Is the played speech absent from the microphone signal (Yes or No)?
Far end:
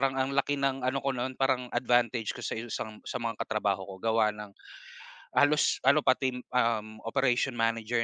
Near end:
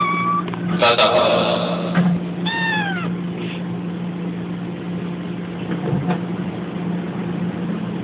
Yes